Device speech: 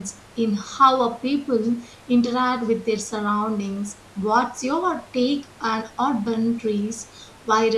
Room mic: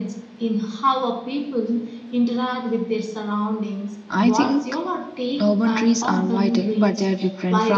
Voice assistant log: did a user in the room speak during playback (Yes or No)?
Yes